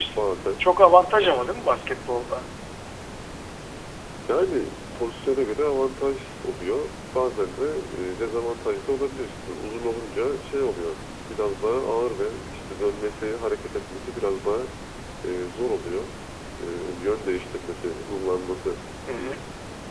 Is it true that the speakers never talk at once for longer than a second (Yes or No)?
Yes